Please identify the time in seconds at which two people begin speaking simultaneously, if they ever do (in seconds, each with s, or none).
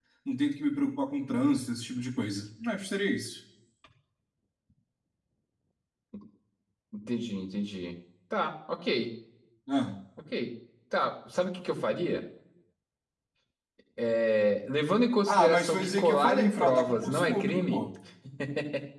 15.3 s